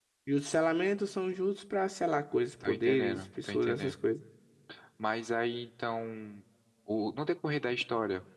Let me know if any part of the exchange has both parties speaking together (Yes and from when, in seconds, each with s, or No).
Yes, from 2.6 s